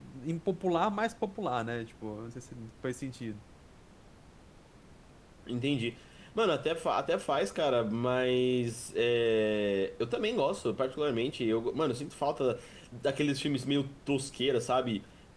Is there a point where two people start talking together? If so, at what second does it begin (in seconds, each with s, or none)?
none